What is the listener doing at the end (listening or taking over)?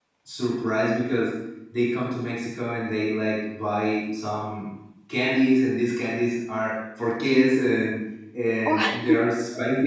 listening